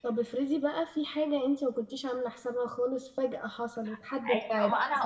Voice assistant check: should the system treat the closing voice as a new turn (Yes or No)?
Yes